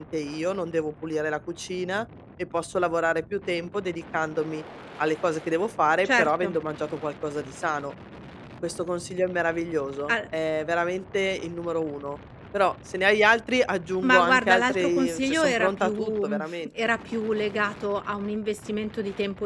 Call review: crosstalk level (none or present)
present